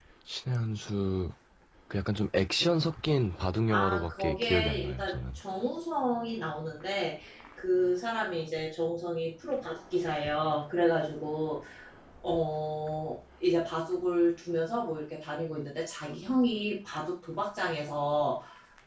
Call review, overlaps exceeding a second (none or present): present